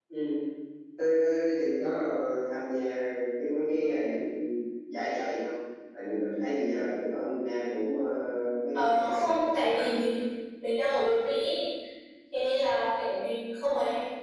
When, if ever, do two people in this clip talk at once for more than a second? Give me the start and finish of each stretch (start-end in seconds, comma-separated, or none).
8.7-10.0